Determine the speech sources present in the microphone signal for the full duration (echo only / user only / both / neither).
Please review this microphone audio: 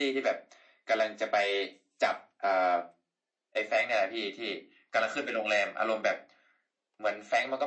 echo only